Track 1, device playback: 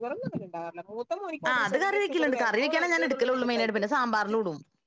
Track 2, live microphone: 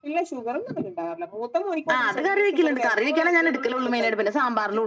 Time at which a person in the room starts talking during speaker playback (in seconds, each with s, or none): none